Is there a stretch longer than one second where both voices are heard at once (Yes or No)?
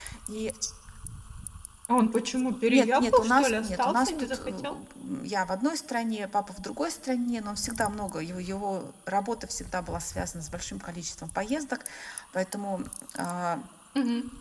Yes